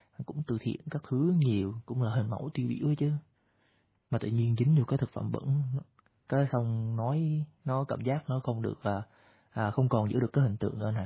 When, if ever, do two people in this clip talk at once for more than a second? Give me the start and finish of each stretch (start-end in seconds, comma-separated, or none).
none